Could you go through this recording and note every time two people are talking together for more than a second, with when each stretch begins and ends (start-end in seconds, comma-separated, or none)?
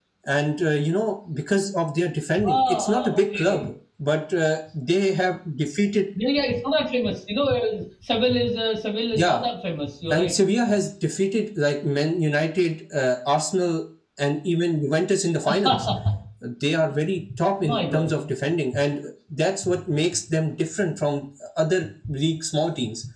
2.4-3.7